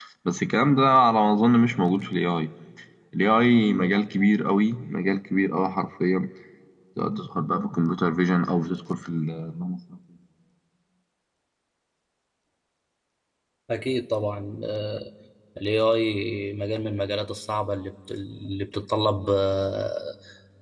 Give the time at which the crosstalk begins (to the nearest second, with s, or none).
none